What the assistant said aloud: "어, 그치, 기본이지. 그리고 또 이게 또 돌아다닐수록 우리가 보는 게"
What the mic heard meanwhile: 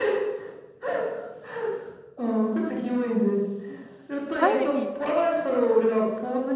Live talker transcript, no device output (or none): 타이밍이